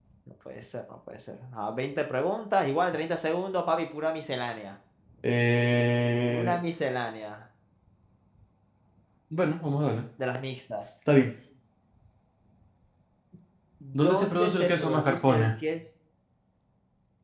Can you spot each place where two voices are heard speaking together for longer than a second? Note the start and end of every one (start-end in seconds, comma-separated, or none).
13.9-15.5